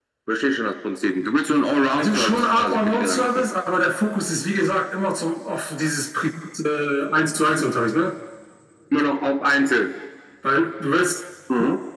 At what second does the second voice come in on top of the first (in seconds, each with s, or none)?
2.0 s